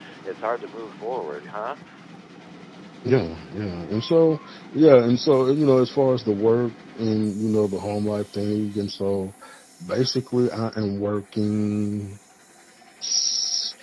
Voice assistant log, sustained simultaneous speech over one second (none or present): none